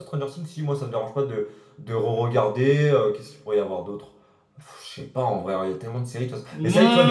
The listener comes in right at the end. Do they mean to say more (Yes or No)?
No